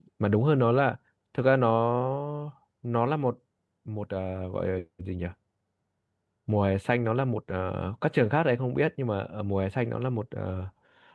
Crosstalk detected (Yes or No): No